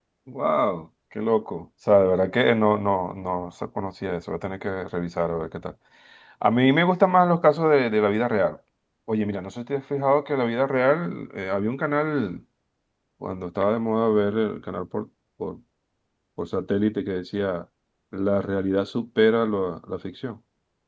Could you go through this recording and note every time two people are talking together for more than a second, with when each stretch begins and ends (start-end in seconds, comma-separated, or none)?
none